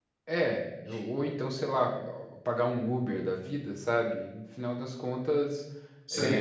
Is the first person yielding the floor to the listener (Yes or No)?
No